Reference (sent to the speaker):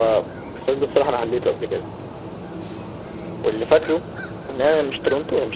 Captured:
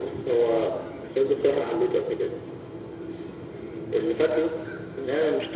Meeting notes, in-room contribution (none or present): none